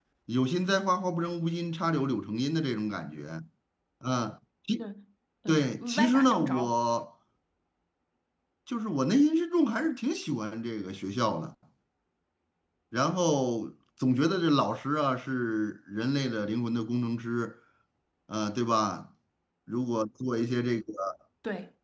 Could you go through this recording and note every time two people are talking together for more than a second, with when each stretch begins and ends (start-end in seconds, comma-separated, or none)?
5.5-6.7